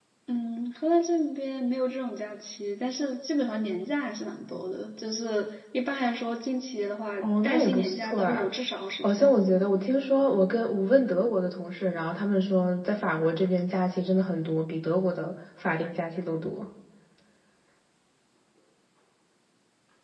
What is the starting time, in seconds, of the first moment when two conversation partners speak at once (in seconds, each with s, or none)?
7.2 s